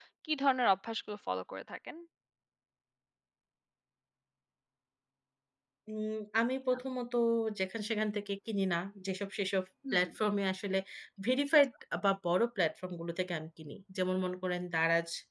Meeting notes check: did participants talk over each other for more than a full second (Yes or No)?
No